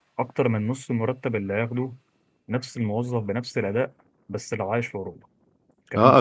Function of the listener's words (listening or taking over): taking over